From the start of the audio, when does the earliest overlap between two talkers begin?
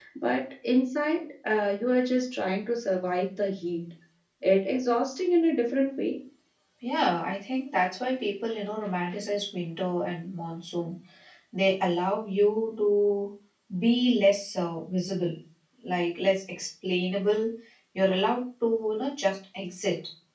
none

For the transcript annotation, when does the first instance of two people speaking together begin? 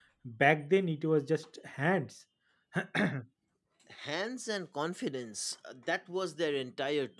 none

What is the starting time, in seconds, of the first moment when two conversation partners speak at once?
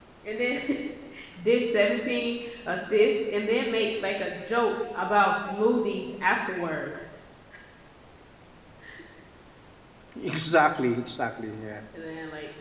none

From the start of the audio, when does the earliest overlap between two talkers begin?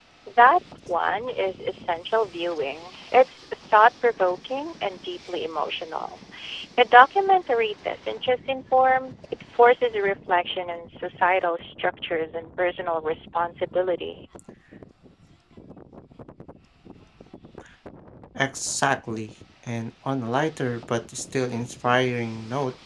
none

